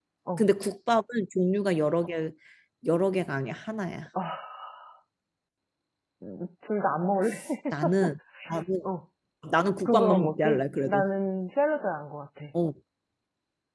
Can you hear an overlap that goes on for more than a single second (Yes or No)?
Yes